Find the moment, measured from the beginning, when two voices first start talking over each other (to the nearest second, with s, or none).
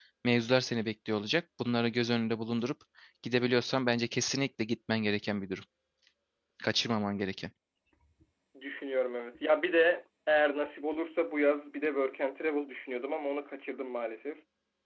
none